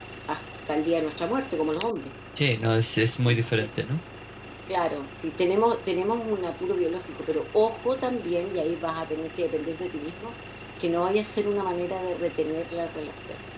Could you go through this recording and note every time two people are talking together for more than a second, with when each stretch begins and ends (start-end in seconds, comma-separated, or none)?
none